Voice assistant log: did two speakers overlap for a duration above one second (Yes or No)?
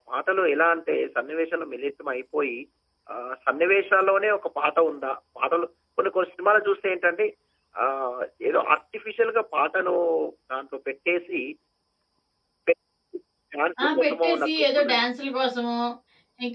Yes